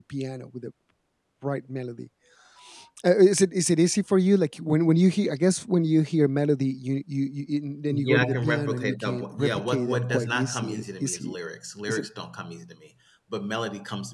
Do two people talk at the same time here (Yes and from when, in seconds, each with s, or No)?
Yes, from 7.9 s